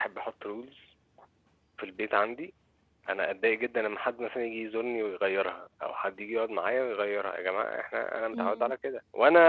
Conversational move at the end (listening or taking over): listening